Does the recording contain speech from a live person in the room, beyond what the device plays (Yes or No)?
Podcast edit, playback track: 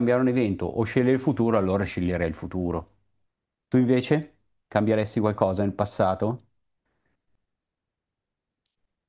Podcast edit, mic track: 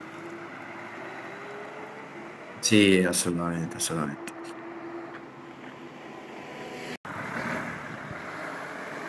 Yes